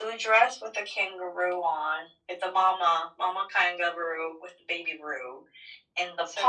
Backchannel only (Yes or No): Yes